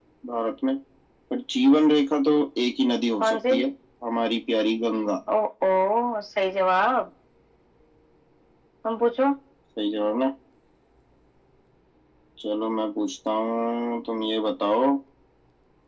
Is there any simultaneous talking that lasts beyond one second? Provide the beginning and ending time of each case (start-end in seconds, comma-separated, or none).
none